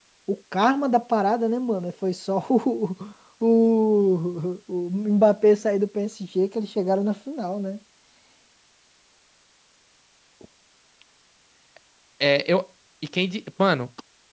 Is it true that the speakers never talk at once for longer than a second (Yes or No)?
Yes